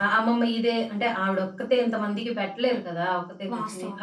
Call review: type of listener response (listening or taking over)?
listening